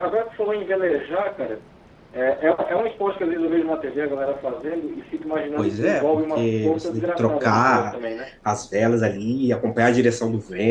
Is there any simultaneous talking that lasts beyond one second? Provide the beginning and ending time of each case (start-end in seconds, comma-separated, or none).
5.6-7.9